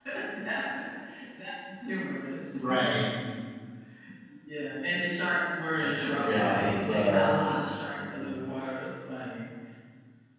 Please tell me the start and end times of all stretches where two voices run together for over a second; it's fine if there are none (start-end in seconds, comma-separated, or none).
5.7-7.3